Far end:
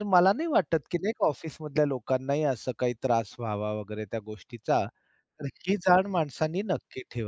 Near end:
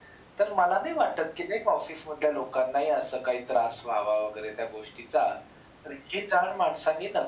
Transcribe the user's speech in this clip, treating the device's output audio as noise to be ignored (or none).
none